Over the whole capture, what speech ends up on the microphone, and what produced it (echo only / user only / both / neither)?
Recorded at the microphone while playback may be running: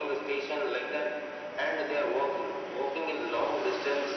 echo only